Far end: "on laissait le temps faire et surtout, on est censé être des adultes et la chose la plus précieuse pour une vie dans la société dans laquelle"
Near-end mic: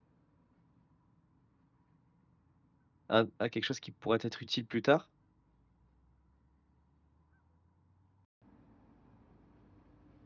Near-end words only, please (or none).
à à b à quelque chose qui pourrait t'être utile plus tard